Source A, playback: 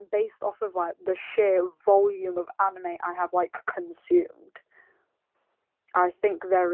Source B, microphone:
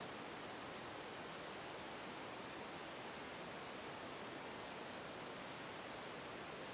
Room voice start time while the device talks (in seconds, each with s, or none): none